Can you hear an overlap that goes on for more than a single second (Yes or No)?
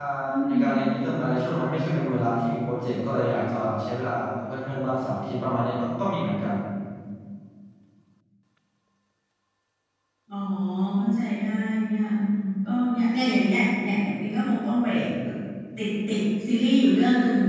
No